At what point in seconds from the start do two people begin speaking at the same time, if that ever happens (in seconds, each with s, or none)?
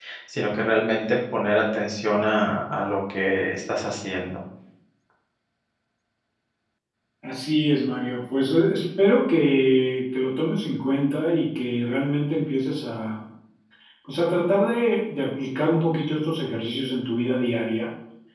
none